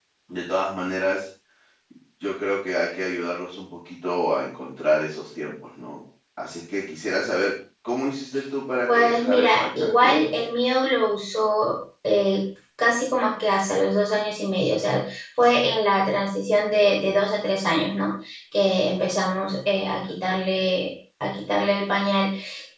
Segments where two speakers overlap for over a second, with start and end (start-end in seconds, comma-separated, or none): 8.9-10.4